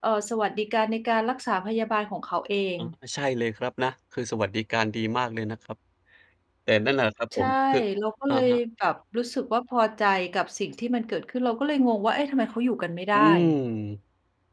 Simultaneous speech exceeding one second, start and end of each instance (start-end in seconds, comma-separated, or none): none